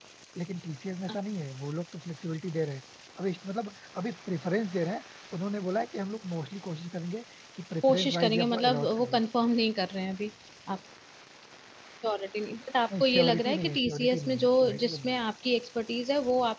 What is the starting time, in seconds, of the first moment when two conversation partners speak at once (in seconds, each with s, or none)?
7.8 s